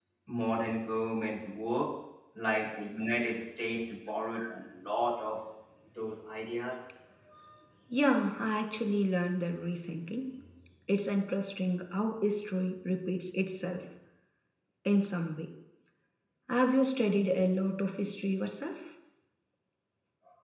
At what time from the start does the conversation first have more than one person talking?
none

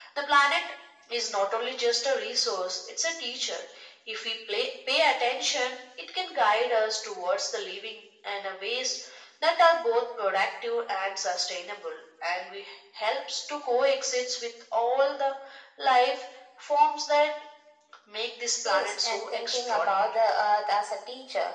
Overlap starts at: 18.6 s

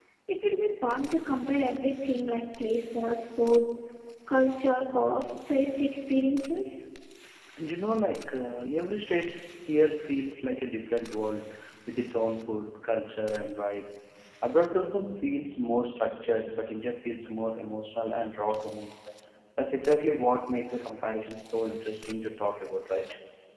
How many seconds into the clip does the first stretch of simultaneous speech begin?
none

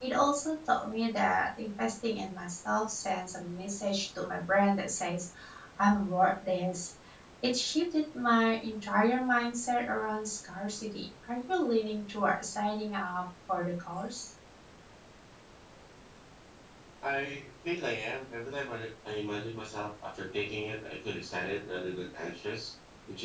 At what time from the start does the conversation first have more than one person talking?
none

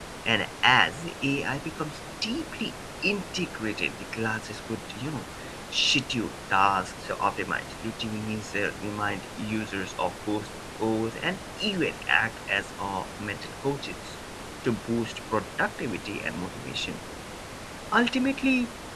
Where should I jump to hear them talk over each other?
none

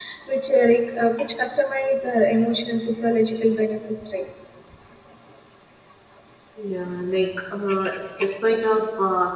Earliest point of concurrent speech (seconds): none

